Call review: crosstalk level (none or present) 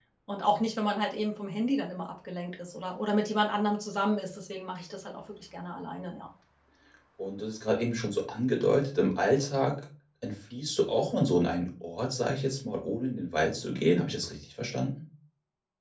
none